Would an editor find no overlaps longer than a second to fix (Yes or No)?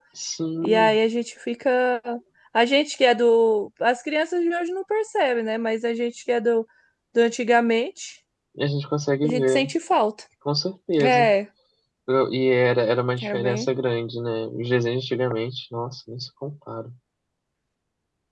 Yes